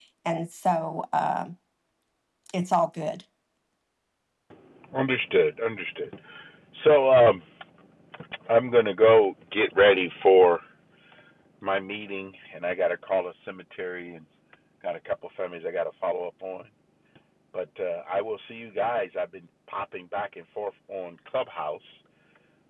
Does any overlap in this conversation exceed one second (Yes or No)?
No